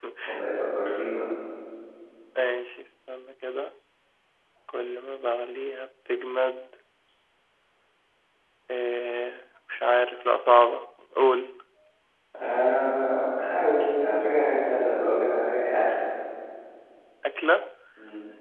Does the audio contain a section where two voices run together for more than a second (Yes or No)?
No